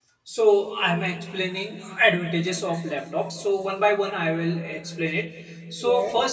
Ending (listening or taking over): listening